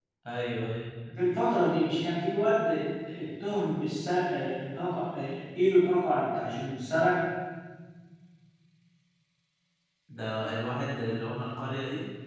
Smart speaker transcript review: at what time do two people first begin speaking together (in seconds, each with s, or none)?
none